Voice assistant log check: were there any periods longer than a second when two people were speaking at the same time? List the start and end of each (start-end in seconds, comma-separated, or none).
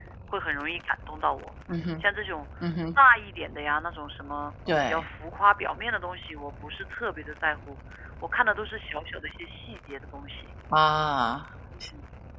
none